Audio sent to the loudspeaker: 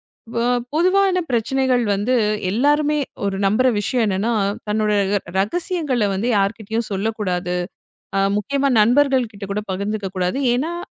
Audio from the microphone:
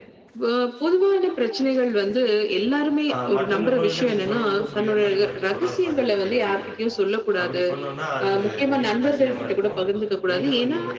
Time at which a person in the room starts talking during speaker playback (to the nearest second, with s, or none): 3 s